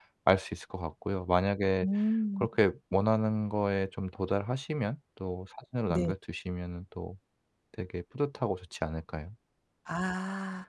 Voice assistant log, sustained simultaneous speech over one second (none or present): none